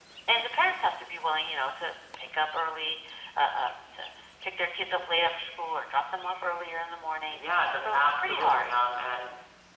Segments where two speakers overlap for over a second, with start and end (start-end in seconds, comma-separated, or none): 7.3-8.7